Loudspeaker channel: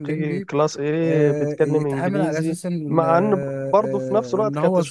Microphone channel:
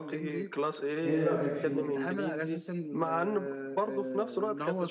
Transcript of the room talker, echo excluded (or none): ايه رأيك فيه انت؟